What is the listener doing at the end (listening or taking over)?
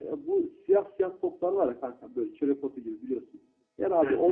listening